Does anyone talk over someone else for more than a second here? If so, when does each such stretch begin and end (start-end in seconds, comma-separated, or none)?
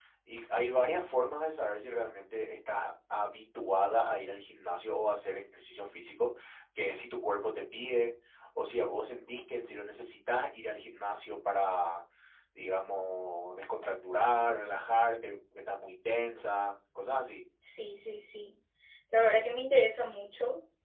none